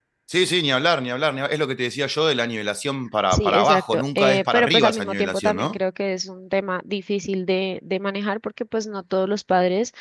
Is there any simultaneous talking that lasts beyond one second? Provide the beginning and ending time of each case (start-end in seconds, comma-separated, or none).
3.3-5.8